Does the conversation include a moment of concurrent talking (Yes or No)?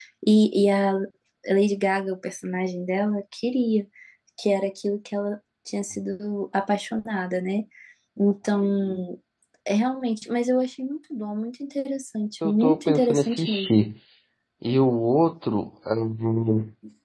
Yes